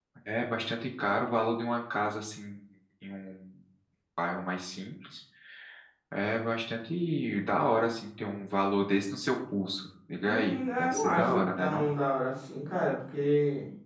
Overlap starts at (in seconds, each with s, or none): 10.2 s